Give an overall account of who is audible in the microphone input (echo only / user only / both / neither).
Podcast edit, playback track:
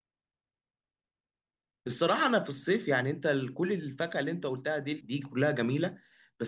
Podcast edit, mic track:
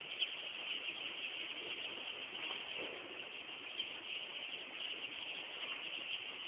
neither